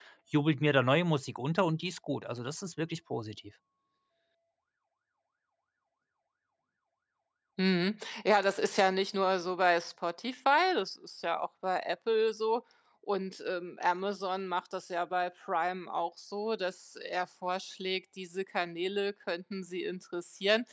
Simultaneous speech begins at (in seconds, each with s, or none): none